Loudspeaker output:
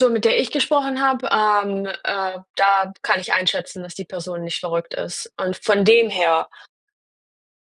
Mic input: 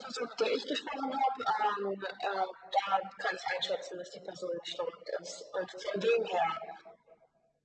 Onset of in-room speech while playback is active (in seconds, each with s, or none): none